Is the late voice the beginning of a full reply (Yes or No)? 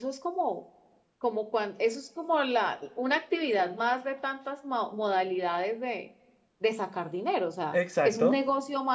No